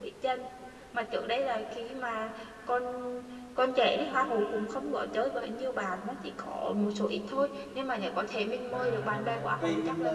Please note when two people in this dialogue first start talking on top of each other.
8.7 s

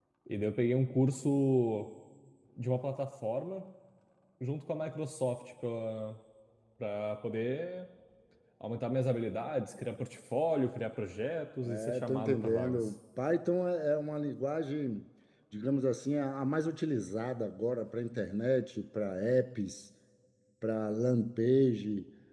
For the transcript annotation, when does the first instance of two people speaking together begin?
11.6 s

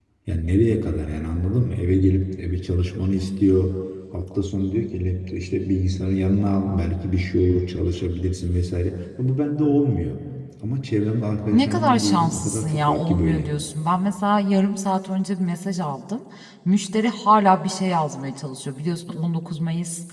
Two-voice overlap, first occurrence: 11.5 s

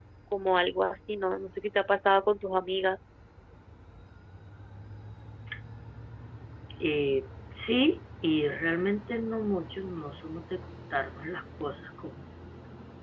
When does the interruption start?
none

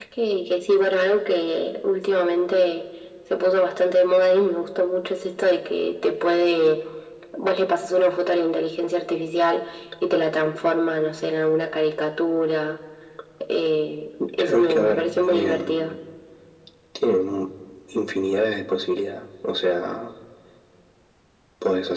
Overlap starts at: 14.4 s

